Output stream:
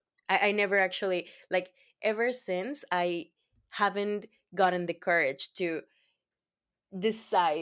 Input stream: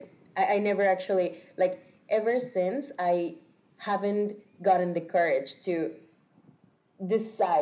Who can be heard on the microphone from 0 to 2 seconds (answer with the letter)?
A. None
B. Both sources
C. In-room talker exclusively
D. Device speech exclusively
D